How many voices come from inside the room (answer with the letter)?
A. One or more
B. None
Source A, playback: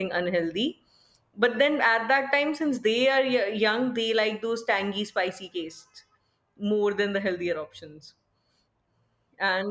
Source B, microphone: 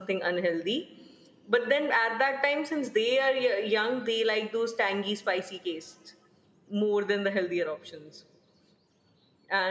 B